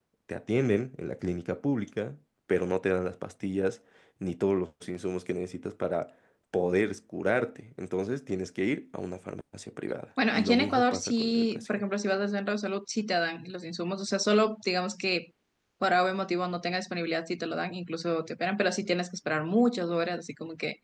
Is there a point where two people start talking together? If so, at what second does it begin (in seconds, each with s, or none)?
10.2 s